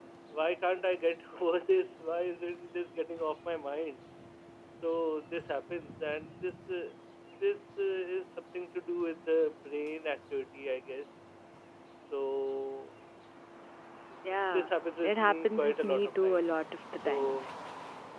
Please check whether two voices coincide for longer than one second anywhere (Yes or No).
Yes